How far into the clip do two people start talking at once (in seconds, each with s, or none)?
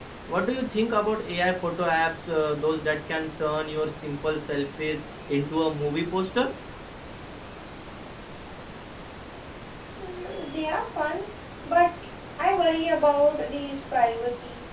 none